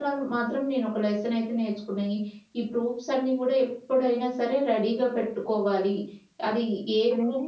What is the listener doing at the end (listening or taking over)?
listening